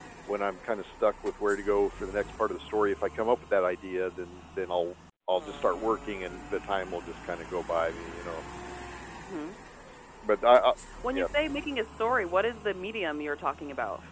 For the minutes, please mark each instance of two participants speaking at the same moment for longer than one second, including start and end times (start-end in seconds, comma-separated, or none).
none